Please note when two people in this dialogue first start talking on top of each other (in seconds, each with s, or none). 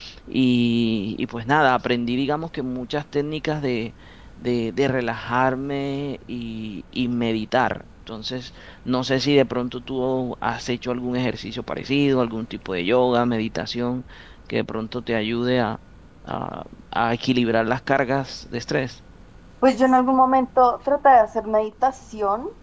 none